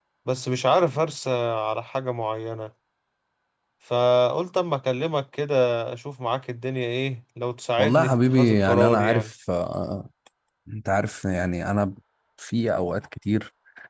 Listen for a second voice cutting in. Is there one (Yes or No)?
Yes